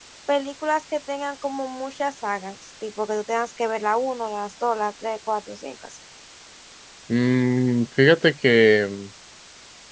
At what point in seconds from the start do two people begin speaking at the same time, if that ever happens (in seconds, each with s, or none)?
none